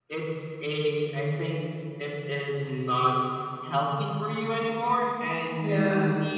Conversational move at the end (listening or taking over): listening